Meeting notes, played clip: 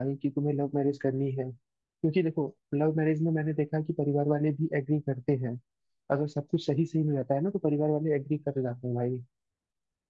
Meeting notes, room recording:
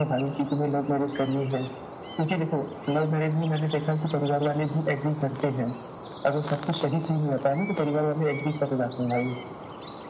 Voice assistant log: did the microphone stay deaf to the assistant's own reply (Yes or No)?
No